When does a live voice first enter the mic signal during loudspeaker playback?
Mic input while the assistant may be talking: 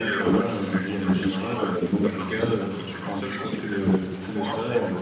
none

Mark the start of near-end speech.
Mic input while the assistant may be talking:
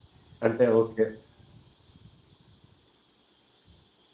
0 s

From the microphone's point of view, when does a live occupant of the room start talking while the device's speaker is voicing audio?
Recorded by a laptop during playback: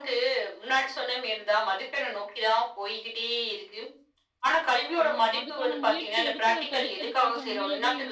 5 s

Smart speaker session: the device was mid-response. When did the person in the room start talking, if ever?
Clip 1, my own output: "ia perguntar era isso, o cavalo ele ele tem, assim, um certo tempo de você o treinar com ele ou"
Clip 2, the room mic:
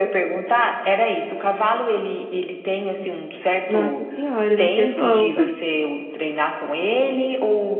4 s

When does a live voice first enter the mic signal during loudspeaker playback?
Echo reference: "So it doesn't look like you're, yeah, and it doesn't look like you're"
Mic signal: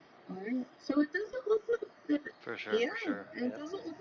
2 s

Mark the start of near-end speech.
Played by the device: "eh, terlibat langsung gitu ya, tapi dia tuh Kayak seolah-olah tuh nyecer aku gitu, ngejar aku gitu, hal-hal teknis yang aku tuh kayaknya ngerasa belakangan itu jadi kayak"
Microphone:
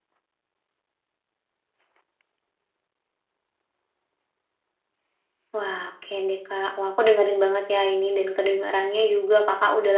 5 s

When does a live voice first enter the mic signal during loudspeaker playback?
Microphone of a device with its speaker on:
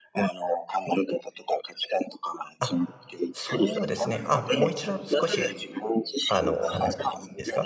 3 s

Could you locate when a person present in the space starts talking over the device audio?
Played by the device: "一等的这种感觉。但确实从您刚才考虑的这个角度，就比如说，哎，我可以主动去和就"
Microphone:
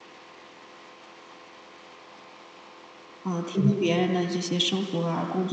3 s

